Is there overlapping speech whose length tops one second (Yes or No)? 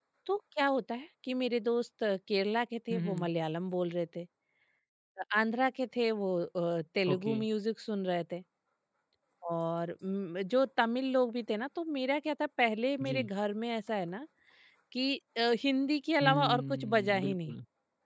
Yes